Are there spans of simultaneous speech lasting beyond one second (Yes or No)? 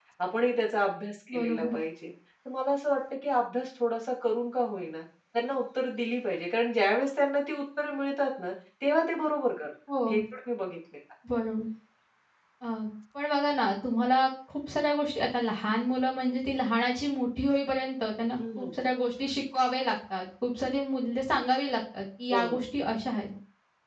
No